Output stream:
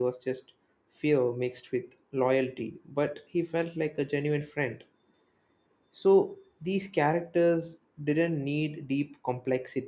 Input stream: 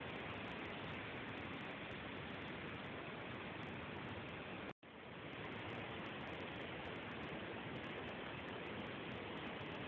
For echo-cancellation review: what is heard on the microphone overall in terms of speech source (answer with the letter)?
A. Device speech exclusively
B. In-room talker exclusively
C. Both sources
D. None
D